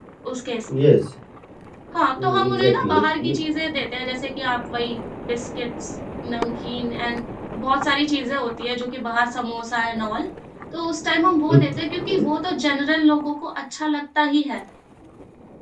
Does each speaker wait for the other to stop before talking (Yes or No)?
No